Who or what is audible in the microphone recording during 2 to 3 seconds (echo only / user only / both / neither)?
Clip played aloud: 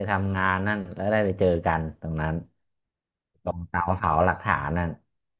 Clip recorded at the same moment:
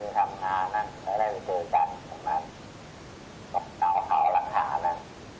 echo only